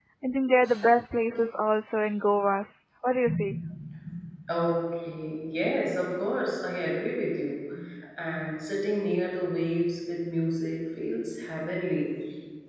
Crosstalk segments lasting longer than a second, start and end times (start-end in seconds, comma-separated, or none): none